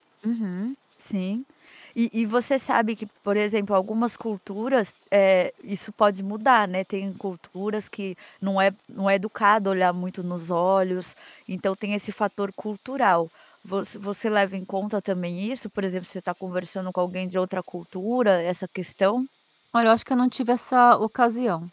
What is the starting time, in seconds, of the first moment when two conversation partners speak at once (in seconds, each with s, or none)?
none